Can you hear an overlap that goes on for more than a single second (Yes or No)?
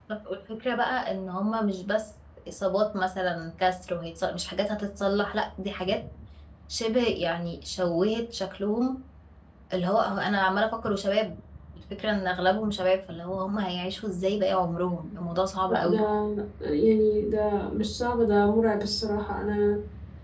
No